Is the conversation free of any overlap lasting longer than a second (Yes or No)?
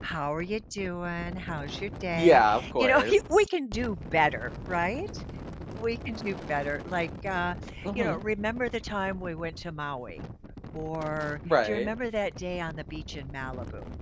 No